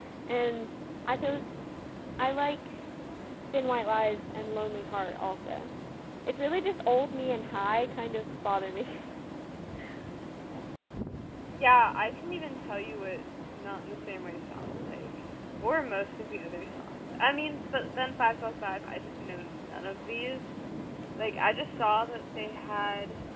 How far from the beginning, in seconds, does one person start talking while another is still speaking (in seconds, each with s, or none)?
none